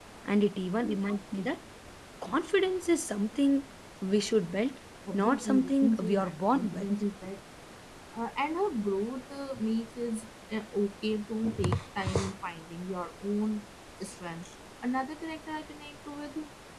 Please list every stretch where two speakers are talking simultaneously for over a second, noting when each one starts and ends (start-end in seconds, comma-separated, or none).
5.1-6.9